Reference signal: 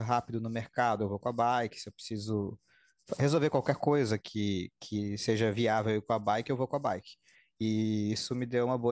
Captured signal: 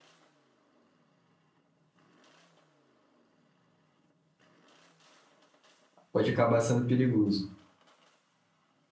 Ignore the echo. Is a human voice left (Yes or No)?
Yes